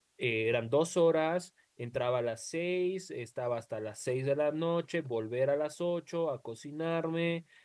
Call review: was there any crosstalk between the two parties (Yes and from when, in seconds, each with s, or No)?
No